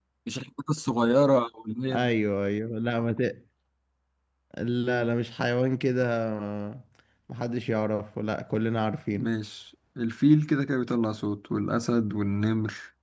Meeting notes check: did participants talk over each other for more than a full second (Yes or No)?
No